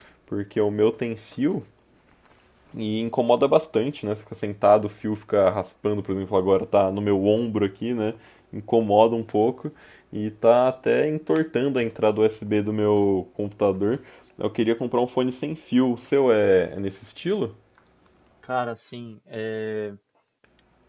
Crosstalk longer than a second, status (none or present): none